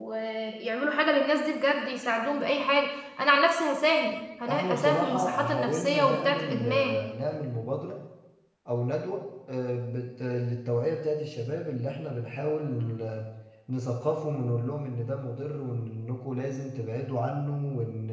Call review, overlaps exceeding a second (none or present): present